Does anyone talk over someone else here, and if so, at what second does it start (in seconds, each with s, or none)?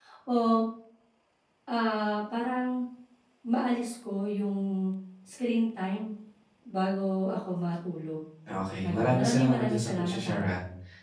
8.8 s